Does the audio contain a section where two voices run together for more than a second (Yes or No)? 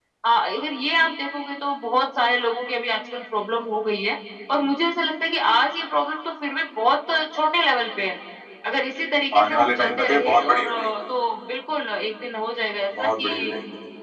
Yes